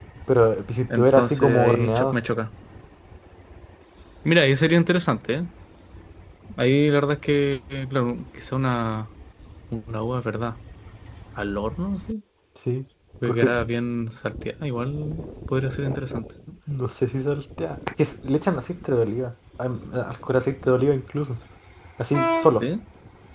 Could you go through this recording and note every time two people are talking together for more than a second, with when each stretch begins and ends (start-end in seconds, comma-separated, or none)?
0.9-2.1